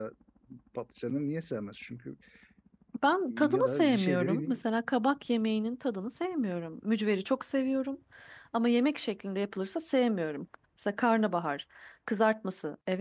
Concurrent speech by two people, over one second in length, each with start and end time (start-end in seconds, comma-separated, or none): 3.3-4.6